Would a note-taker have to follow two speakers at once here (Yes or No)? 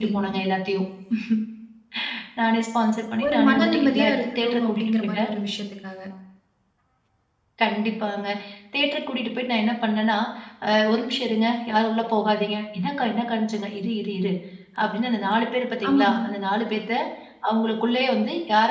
Yes